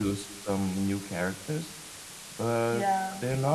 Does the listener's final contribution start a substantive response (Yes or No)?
Yes